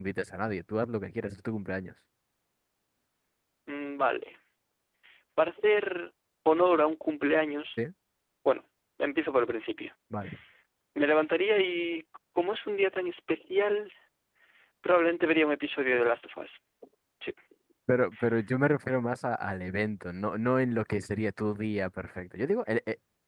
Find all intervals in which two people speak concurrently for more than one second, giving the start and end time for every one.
none

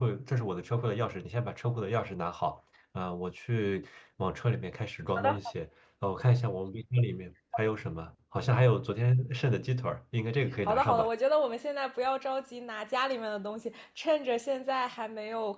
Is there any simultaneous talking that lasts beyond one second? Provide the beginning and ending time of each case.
none

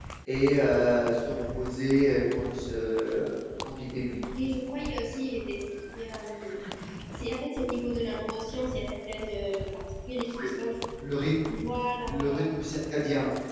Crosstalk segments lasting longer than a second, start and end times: none

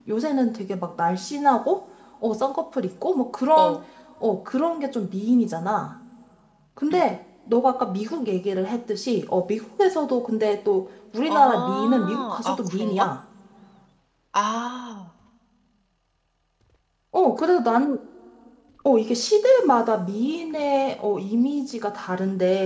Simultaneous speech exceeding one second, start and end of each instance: 11.3-13.1

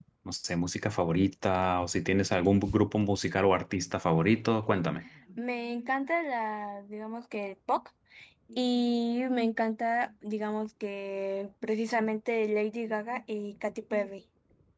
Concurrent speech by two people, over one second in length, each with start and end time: none

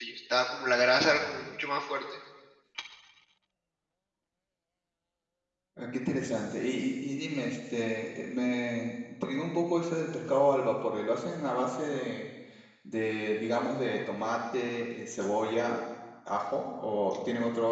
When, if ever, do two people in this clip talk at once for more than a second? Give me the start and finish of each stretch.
none

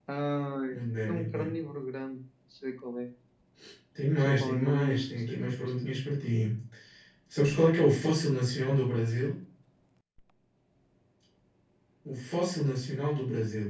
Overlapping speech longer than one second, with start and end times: 4.2-6.0

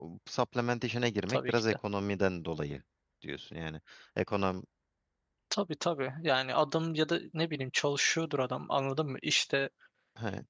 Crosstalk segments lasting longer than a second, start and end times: none

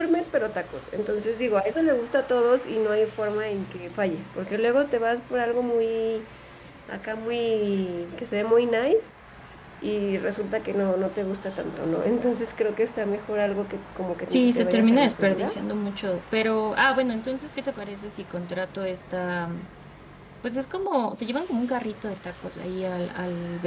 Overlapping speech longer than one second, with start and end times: 14.3-15.6

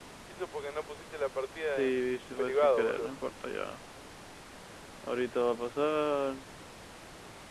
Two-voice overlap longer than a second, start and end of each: 1.6-3.1

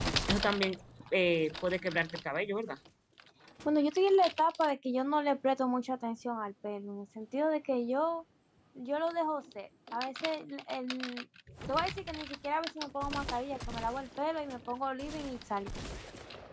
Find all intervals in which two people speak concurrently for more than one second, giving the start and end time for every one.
none

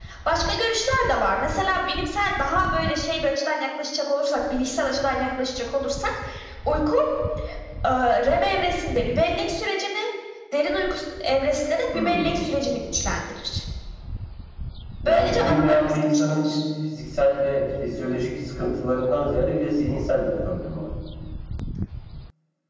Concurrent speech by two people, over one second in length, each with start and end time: 15.1-16.5

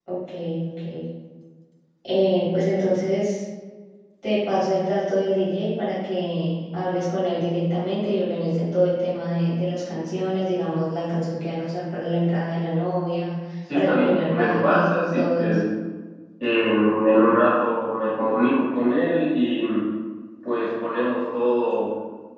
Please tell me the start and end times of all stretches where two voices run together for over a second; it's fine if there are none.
13.7-15.6

